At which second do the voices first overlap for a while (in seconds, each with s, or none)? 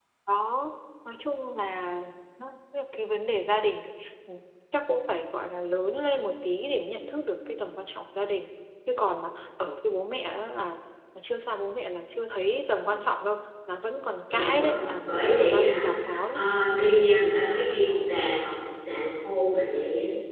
14.3 s